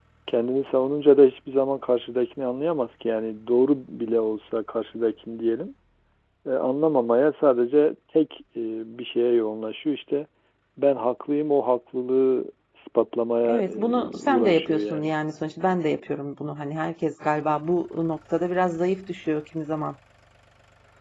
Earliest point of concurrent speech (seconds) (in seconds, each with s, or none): 13.4 s